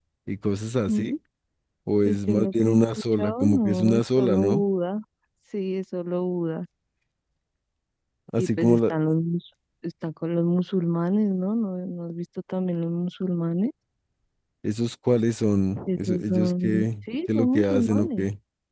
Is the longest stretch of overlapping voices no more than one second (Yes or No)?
No